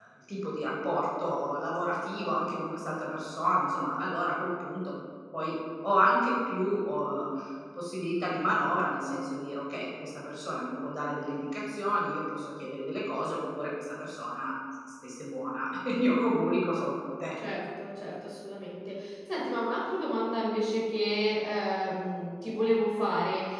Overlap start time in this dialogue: none

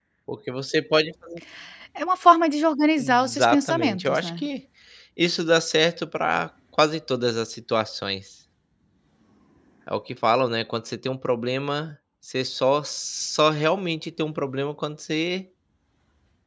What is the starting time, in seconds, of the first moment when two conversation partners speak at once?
3.0 s

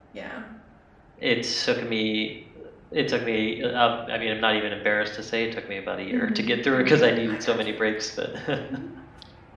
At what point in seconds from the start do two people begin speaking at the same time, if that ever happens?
6.1 s

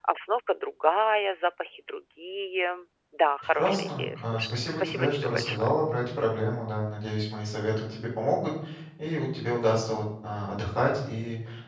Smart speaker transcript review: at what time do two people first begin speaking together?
3.5 s

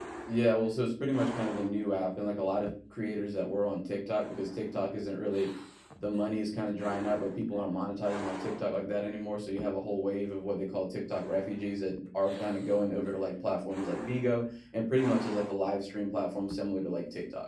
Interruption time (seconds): none

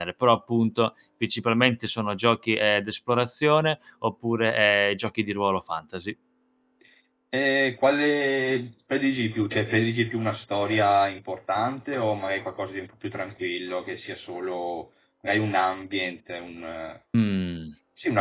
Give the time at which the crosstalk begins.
none

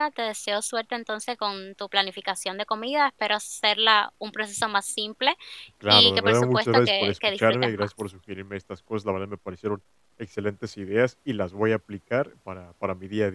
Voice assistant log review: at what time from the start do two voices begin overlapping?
5.9 s

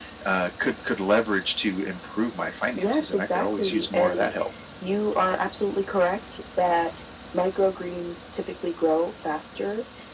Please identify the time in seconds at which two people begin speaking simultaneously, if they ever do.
2.8 s

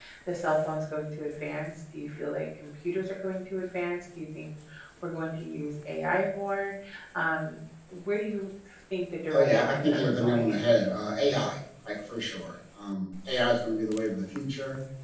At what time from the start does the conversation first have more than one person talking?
9.3 s

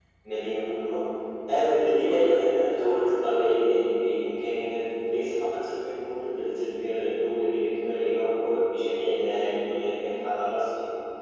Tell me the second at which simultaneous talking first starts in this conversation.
none

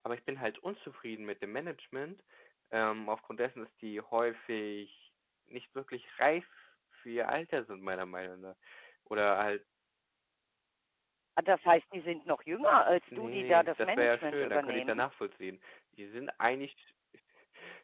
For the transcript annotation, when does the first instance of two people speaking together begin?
13.1 s

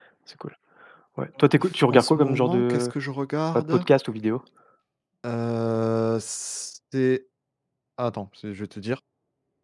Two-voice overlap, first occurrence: 1.6 s

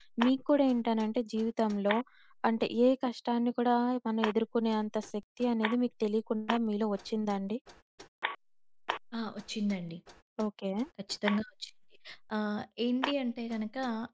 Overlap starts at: none

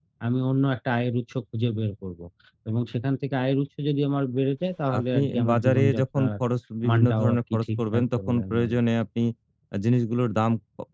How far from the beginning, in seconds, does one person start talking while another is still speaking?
5.0 s

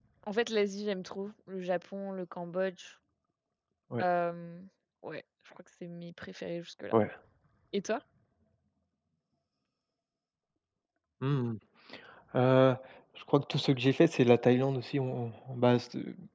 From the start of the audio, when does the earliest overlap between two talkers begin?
none

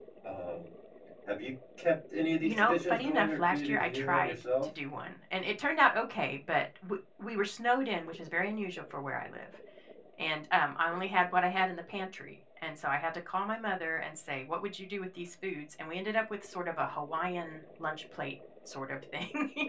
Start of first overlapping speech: 2.4 s

